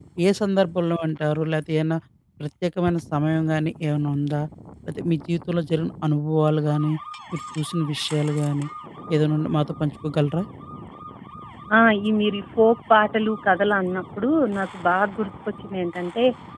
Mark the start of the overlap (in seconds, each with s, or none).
none